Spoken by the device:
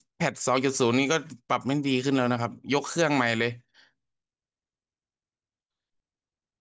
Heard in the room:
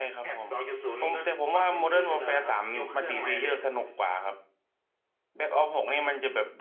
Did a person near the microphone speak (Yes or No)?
Yes